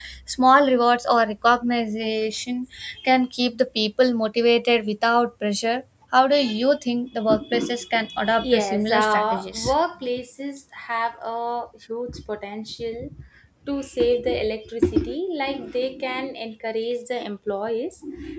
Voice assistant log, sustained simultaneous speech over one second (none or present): present